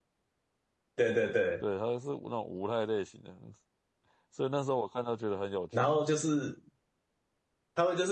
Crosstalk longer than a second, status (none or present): none